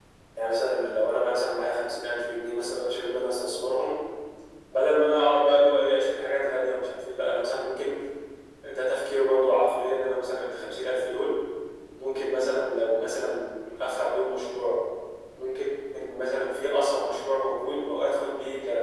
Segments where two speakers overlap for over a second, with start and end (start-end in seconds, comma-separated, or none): none